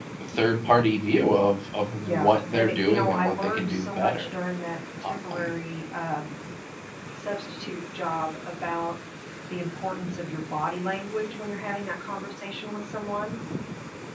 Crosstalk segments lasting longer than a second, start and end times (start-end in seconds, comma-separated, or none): 2.0-4.2